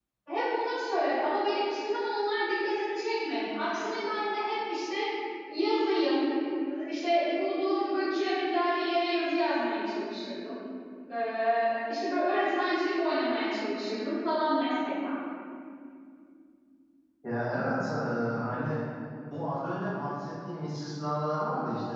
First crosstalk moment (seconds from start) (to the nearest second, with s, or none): none